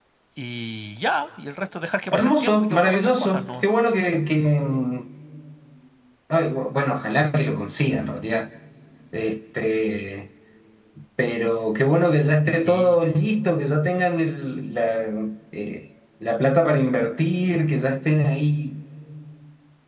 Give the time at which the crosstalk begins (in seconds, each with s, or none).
2.1 s